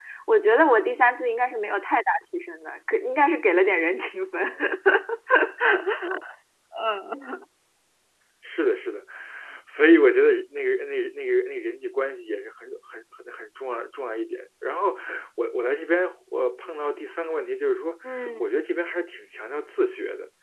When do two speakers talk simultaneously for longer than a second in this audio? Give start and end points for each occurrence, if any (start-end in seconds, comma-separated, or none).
none